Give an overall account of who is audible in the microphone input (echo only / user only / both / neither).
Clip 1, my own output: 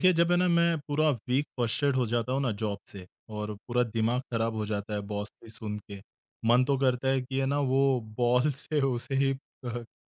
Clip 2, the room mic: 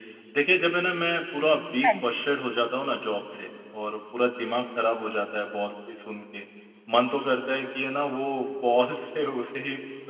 both